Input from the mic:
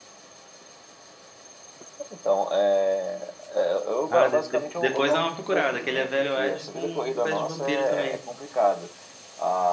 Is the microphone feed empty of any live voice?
No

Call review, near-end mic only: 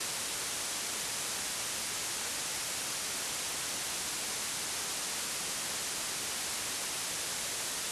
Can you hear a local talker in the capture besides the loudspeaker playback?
No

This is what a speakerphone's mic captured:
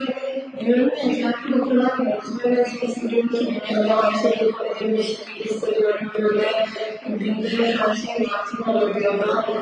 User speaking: No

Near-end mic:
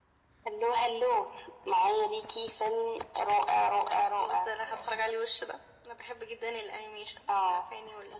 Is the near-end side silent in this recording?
Yes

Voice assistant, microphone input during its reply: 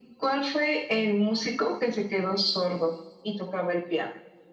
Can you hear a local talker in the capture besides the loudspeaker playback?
No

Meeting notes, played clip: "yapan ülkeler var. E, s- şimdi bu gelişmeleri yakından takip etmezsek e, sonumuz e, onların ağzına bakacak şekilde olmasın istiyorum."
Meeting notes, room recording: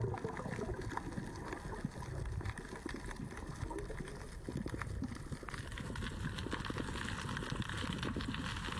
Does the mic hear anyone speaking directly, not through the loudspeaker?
No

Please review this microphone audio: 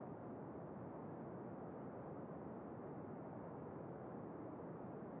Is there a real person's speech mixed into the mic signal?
No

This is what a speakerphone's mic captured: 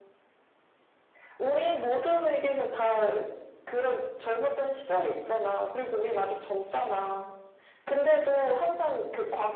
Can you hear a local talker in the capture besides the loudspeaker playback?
No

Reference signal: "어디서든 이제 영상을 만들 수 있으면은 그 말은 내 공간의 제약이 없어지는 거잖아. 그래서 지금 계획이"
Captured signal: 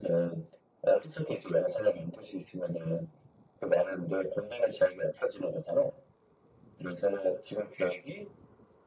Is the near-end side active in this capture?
No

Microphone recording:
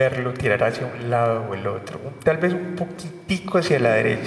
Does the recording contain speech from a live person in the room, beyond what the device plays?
Yes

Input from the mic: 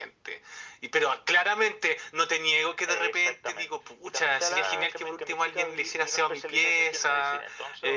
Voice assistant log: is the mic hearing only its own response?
Yes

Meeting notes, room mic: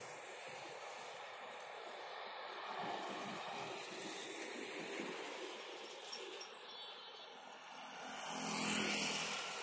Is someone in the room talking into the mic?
No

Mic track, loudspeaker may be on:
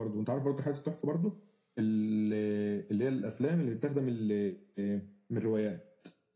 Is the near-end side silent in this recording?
Yes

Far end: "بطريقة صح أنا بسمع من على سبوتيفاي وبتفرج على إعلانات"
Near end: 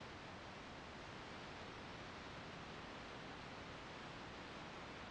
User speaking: No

